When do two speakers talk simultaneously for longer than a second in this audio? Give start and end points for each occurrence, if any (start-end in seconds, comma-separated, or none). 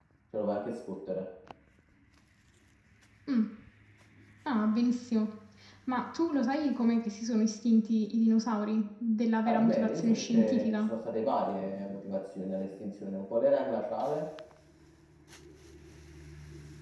9.4-10.9